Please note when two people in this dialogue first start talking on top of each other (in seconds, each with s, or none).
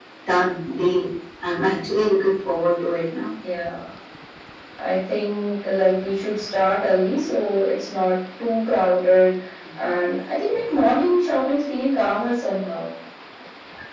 none